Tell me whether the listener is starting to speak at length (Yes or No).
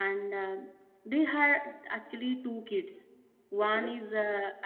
No